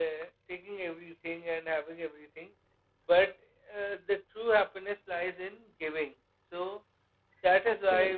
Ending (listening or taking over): listening